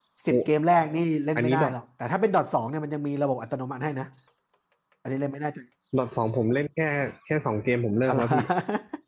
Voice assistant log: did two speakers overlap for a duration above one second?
No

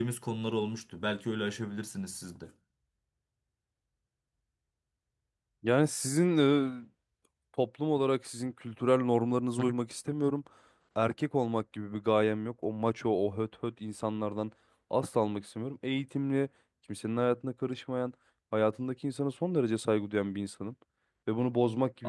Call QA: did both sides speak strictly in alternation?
Yes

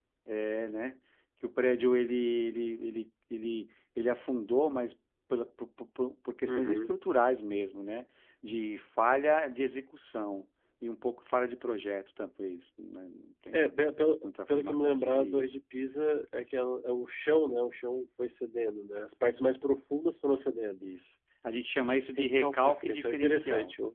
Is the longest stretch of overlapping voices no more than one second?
No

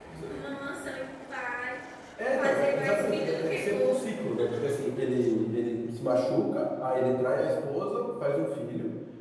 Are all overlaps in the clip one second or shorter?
No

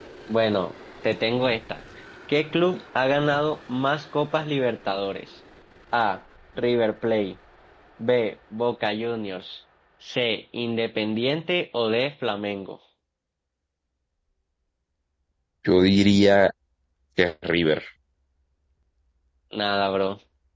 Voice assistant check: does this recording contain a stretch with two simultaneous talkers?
No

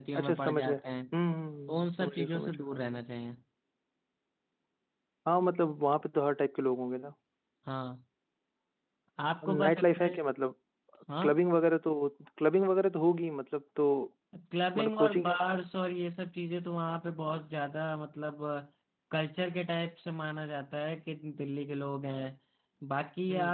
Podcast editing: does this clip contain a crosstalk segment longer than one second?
Yes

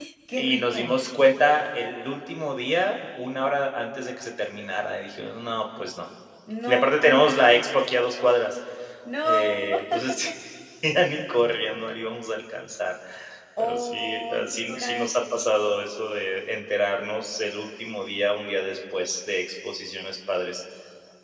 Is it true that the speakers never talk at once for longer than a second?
No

